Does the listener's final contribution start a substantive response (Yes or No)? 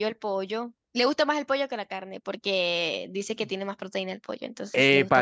Yes